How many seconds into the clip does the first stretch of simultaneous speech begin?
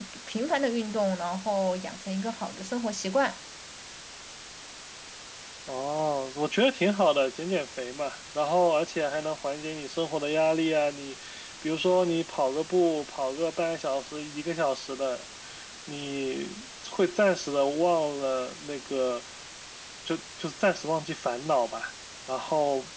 none

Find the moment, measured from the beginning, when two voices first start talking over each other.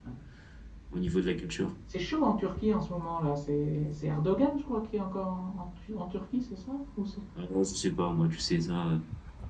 none

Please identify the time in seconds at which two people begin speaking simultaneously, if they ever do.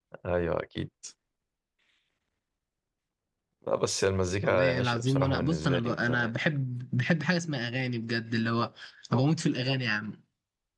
4.4 s

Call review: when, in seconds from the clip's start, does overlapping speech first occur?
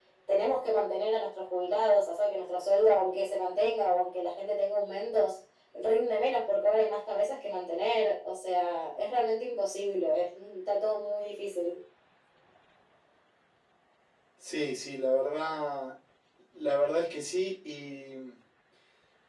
none

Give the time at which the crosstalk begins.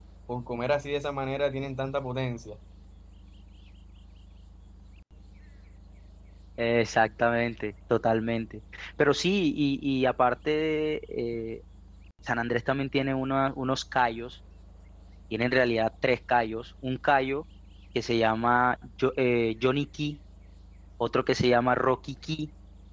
none

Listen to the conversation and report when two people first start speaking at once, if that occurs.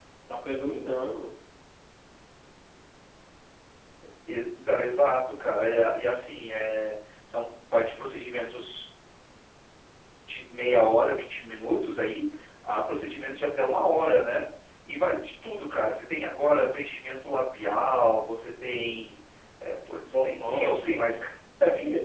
20.1 s

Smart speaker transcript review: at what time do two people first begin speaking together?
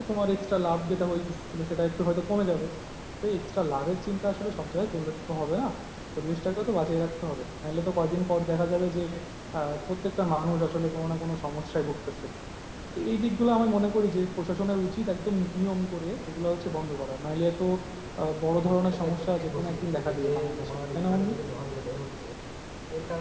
18.5 s

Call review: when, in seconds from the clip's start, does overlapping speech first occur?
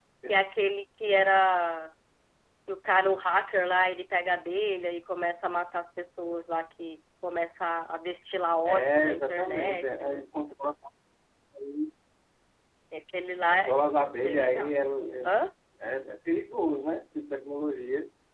8.6 s

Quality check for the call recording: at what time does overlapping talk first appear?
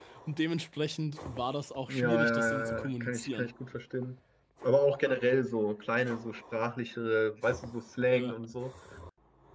1.9 s

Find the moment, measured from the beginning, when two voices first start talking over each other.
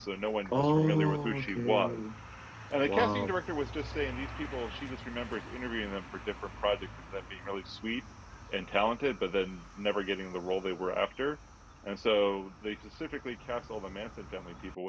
0.5 s

